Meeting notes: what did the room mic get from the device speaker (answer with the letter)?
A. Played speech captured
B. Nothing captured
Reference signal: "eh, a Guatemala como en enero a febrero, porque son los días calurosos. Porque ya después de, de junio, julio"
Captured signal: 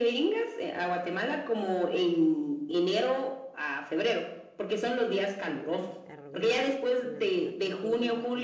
A